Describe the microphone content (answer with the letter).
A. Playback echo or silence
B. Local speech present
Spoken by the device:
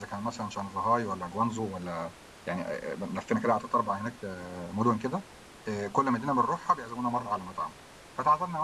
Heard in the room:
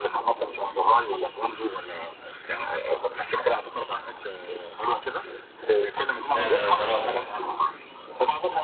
B